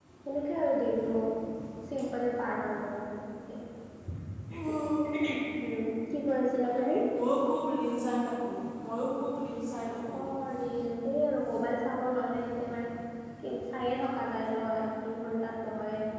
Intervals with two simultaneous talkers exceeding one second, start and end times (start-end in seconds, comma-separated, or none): none